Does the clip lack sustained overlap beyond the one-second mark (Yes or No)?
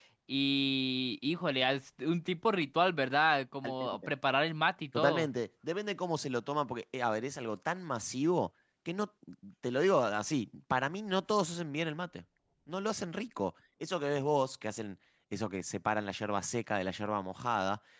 Yes